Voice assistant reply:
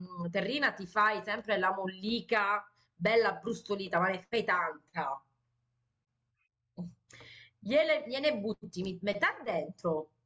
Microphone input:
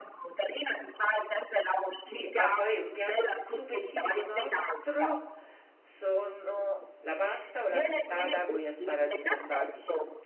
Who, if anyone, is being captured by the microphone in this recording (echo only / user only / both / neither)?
both